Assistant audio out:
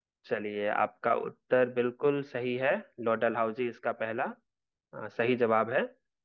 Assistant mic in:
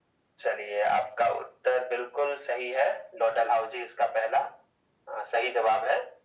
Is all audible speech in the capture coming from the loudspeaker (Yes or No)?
Yes